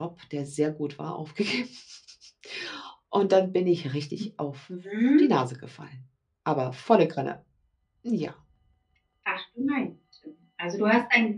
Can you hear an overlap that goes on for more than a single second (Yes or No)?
No